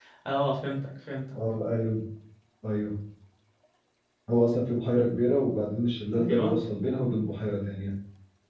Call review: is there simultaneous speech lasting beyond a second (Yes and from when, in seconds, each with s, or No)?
No